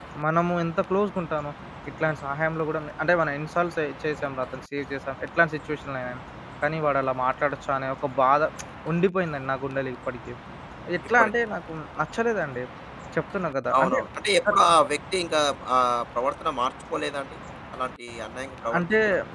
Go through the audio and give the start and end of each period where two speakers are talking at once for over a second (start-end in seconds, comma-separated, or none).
none